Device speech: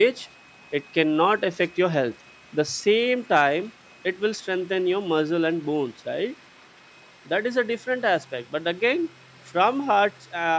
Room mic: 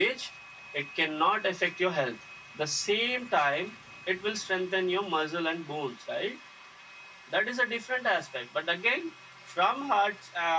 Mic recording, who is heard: echo only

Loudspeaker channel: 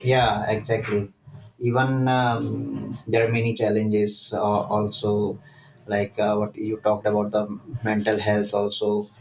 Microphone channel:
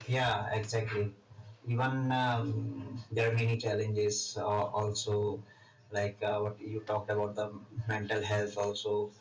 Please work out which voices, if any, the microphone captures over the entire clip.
echo only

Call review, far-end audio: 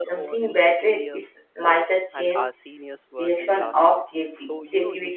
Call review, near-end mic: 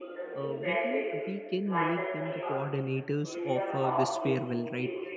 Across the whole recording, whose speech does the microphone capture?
both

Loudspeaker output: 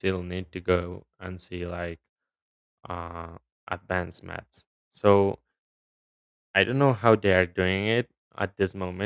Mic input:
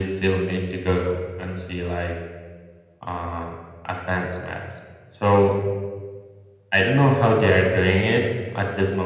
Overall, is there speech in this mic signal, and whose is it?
echo only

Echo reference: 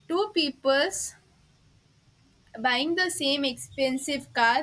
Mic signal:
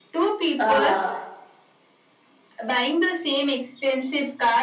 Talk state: both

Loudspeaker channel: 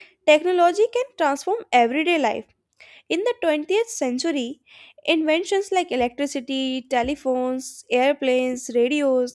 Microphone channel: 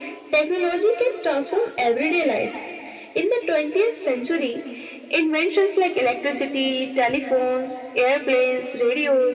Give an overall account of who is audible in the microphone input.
echo only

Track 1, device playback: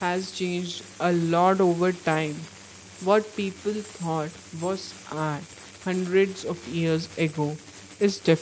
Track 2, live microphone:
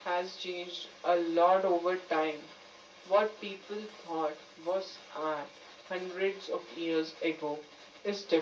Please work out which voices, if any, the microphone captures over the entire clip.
echo only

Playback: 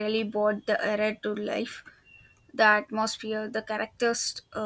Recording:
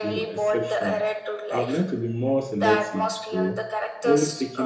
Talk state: both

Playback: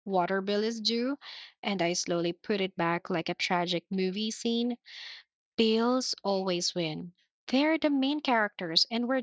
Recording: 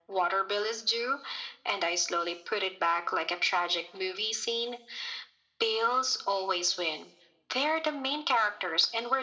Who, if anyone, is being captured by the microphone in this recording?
echo only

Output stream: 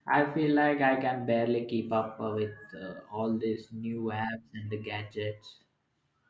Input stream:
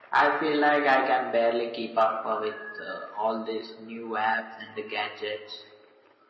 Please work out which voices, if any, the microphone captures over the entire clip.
echo only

